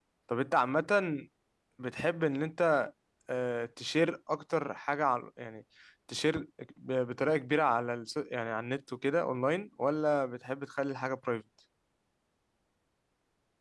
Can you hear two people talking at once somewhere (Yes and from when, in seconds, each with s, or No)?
No